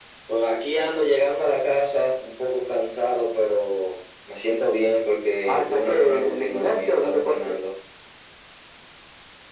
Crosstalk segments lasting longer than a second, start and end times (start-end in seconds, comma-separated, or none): 5.4-7.5